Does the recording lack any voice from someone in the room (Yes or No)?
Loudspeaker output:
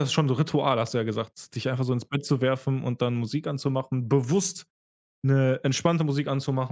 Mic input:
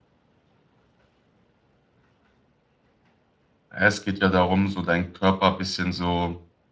No